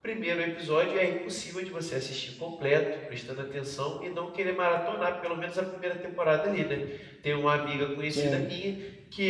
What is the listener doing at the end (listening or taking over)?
listening